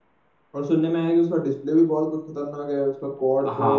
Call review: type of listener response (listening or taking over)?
taking over